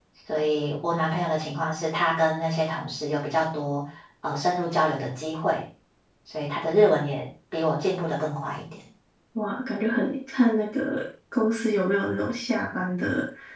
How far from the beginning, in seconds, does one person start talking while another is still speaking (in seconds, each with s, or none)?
none